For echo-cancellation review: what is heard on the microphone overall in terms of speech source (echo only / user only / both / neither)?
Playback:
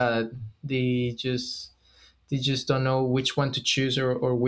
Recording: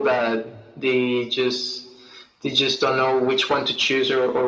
echo only